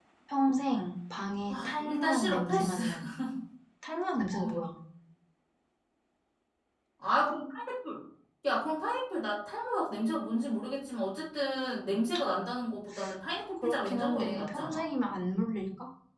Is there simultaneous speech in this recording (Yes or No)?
Yes